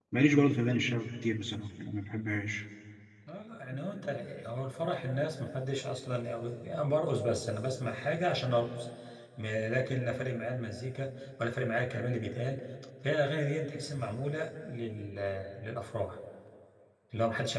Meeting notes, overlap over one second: none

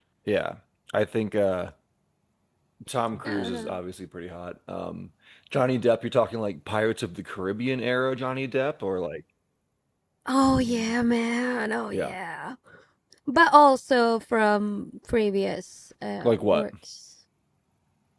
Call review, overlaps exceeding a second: none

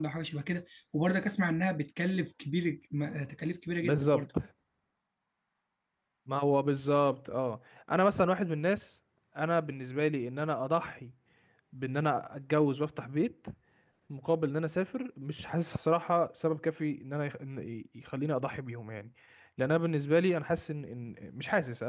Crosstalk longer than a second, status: none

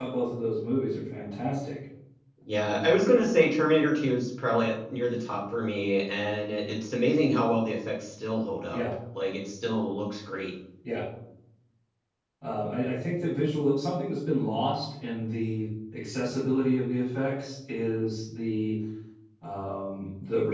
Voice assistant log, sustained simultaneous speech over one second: none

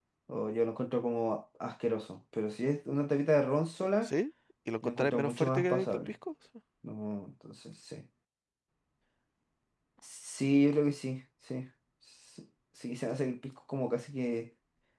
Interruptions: present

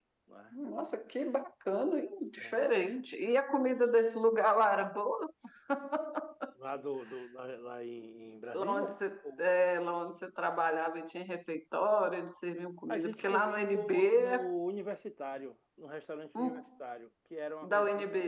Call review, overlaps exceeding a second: present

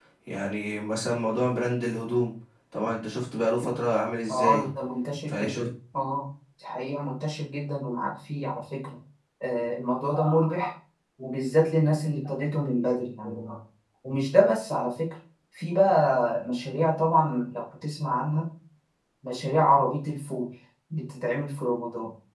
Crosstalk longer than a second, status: none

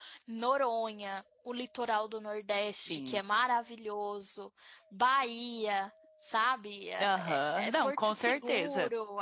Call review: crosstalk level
present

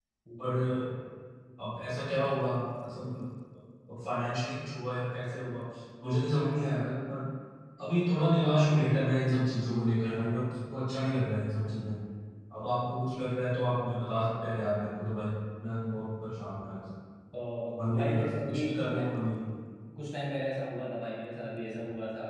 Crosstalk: present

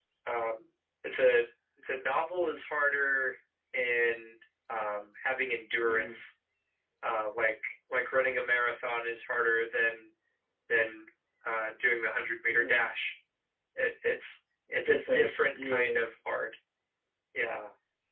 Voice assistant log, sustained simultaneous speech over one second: present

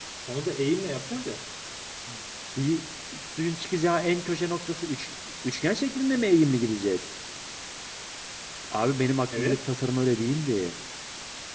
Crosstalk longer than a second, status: none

